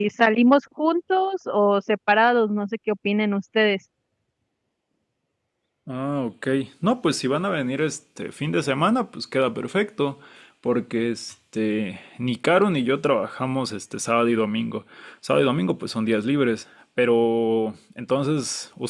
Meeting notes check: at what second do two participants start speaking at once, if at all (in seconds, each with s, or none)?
none